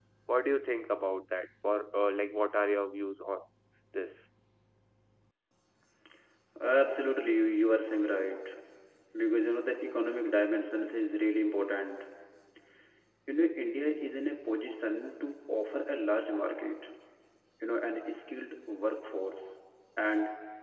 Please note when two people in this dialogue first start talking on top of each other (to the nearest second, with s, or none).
none